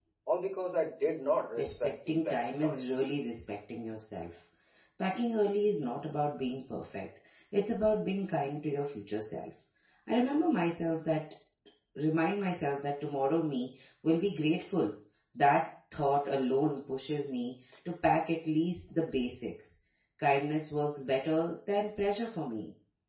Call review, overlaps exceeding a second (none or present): present